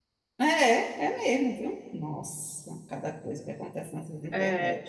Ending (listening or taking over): taking over